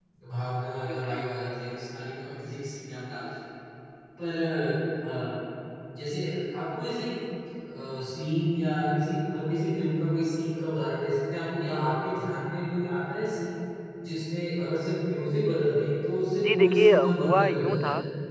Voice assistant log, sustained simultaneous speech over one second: present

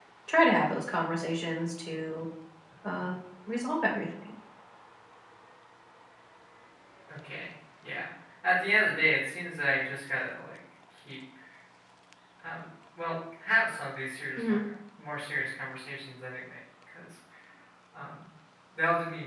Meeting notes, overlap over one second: none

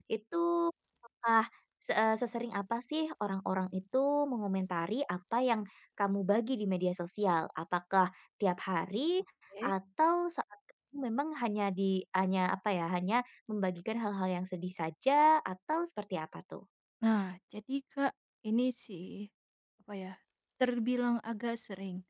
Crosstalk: none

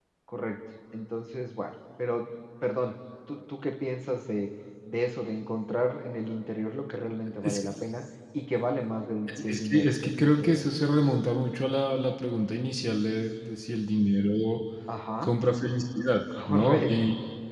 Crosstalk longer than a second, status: present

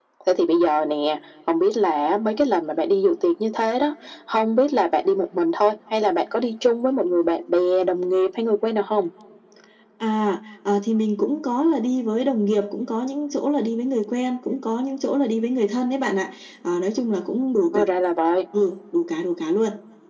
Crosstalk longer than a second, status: none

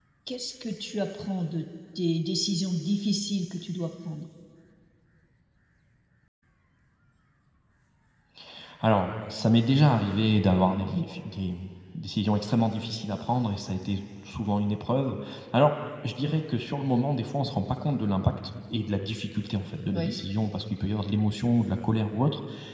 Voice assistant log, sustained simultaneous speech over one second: none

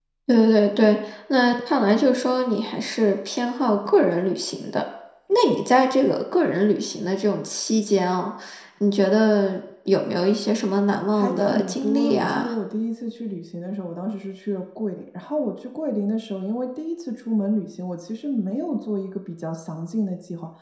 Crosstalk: present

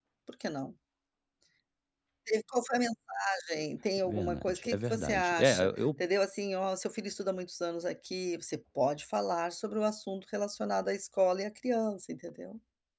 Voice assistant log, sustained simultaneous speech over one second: present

